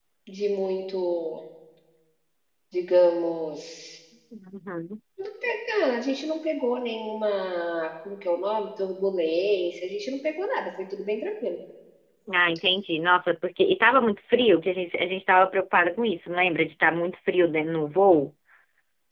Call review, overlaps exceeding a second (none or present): none